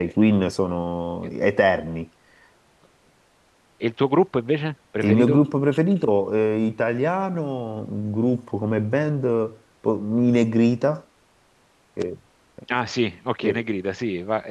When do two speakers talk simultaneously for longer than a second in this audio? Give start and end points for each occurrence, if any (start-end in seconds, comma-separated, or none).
none